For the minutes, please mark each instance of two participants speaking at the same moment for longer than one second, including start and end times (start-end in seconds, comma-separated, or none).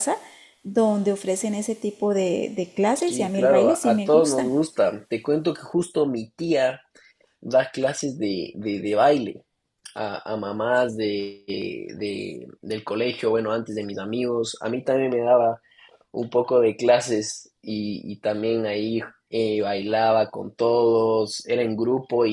3.1-4.5